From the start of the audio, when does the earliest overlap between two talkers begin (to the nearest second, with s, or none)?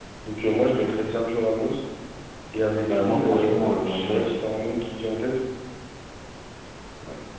3 s